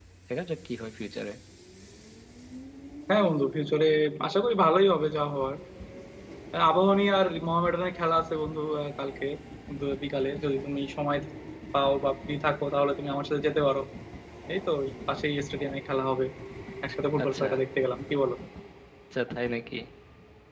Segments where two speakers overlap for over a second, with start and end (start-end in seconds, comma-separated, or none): none